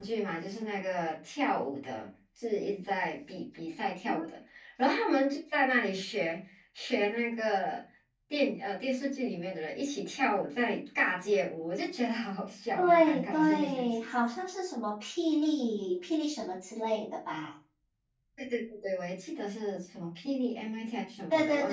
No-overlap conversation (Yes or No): No